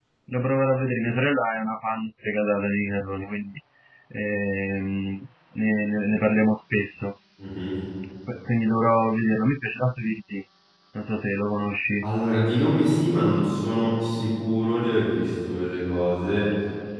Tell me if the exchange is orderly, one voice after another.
Yes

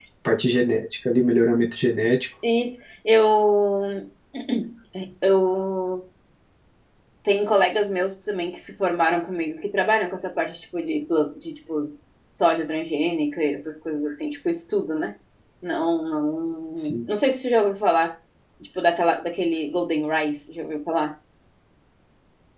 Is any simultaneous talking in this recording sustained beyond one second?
No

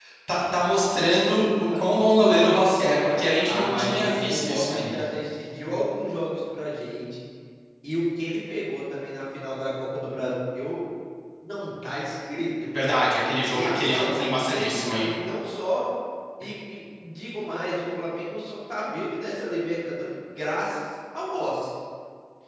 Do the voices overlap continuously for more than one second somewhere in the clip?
Yes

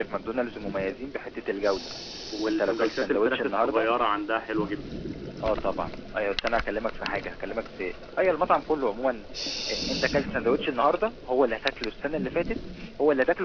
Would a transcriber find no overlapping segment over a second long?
No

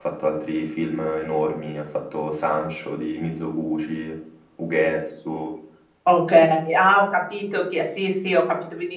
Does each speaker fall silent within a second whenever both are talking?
Yes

